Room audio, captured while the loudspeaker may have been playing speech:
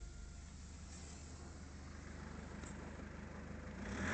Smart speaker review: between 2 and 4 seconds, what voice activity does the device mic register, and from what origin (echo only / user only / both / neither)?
neither